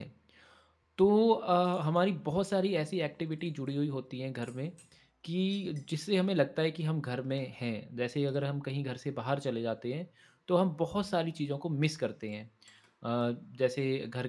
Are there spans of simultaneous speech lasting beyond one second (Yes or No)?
No